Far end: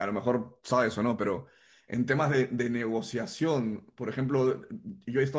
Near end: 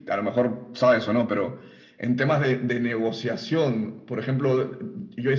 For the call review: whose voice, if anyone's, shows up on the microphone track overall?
echo only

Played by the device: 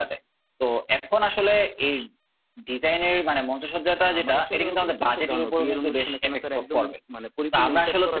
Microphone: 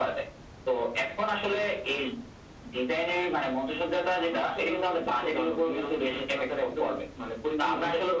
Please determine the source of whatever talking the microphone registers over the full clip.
echo only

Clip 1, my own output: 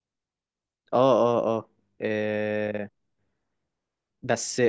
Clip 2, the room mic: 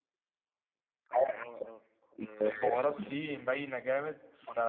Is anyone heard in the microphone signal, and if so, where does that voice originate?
both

